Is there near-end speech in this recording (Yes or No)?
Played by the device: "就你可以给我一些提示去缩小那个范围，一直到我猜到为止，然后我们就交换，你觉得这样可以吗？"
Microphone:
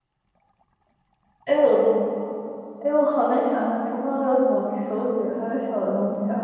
Yes